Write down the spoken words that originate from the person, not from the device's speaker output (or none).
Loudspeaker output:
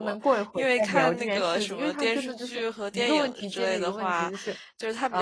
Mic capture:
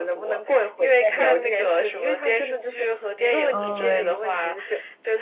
哦，